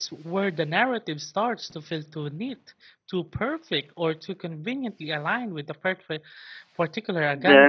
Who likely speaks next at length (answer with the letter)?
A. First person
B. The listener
B